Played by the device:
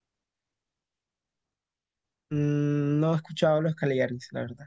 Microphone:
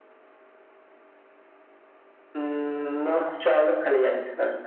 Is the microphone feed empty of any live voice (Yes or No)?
Yes